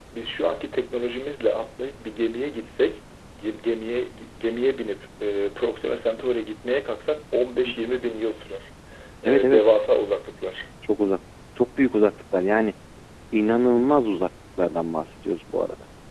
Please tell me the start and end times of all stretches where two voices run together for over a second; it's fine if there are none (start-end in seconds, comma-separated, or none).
none